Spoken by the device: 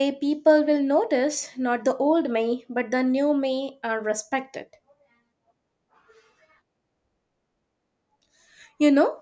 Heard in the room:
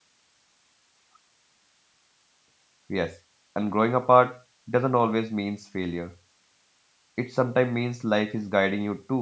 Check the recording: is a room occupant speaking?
Yes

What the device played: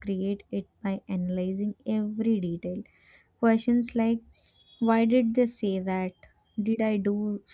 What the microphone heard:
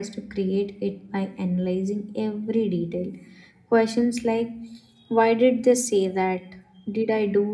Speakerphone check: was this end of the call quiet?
Yes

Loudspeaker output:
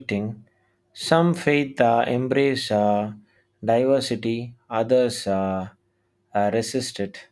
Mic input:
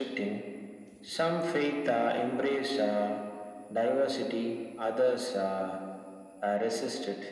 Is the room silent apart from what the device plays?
Yes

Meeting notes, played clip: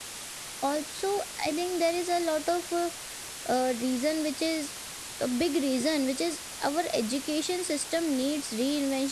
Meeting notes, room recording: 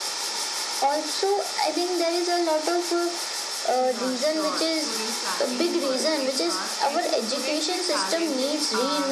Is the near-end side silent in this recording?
No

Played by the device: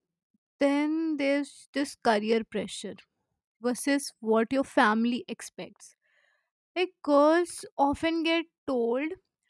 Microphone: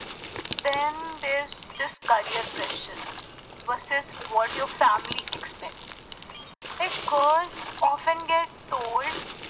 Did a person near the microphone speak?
No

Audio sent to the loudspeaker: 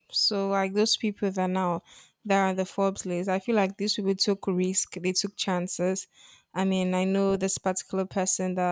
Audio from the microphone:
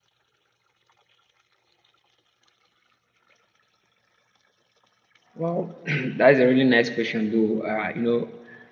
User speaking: Yes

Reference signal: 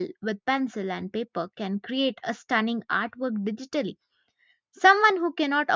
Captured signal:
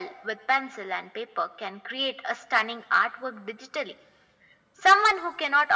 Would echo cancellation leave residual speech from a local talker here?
No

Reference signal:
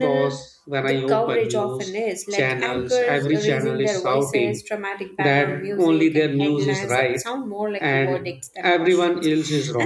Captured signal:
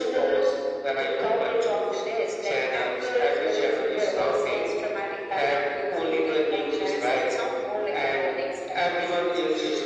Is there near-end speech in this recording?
No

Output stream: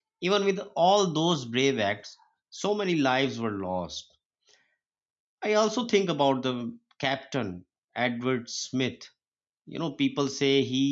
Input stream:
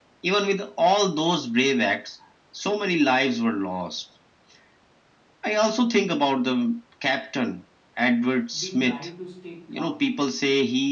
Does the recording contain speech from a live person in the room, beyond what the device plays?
Yes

